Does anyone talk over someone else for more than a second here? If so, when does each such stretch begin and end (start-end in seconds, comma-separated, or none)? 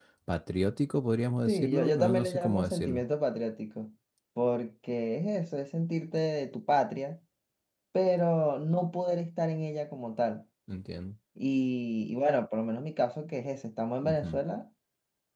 1.5-3.0